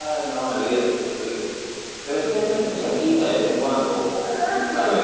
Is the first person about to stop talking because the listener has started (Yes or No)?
Yes